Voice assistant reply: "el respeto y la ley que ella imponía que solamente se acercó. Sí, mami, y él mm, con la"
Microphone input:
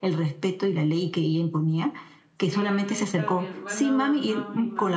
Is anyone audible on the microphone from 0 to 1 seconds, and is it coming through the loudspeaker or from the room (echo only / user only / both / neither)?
echo only